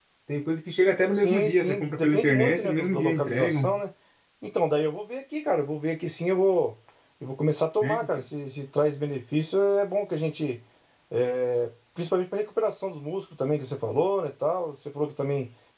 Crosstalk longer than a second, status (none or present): present